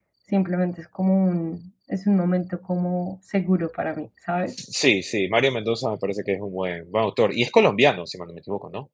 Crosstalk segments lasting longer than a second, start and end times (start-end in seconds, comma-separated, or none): none